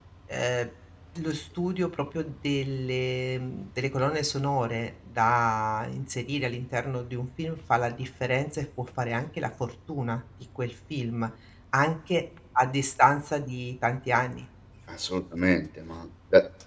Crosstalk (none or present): none